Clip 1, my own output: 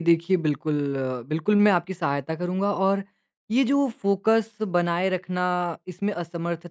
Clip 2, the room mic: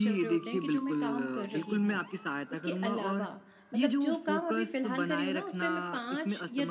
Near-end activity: present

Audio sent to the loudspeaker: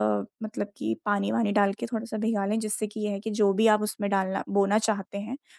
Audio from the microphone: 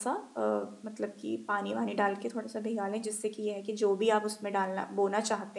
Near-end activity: none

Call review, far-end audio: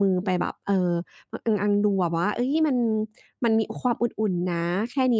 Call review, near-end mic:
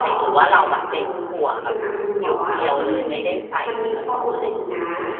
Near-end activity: present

